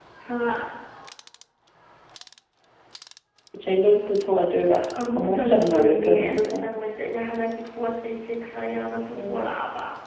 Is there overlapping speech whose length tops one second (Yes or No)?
Yes